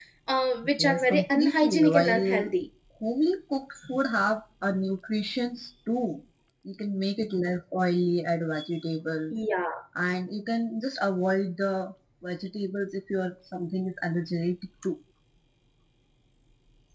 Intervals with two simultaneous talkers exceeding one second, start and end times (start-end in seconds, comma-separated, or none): 0.8-2.4